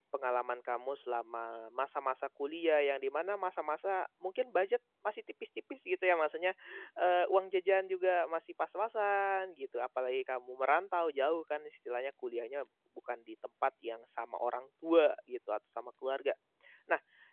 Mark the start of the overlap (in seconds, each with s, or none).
none